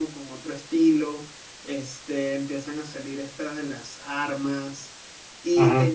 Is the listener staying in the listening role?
Yes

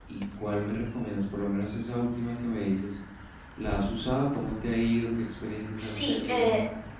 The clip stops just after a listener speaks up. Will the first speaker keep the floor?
No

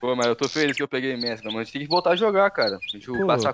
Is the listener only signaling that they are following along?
No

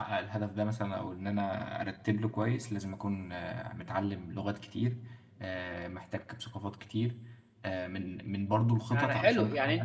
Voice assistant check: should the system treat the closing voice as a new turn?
Yes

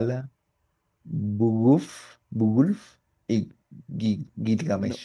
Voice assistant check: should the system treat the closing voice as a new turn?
Yes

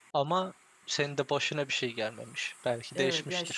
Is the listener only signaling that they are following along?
No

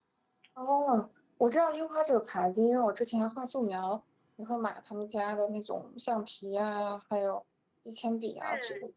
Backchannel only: No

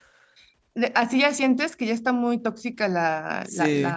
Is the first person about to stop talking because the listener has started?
Yes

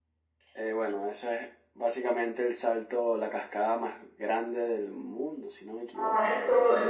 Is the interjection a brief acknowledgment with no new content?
No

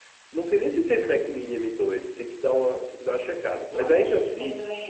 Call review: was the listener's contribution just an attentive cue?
No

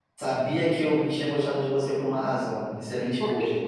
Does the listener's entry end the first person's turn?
No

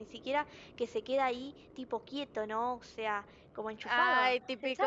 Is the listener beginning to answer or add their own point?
Yes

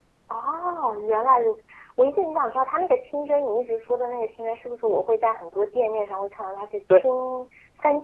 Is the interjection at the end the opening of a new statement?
No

